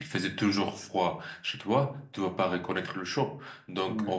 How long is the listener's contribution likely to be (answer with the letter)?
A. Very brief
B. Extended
A